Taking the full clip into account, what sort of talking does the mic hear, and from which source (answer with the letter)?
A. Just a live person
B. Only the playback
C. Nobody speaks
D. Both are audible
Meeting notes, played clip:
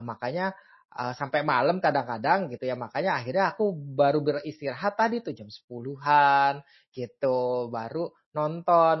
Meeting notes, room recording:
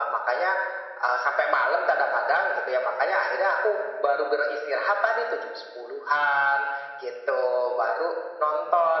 B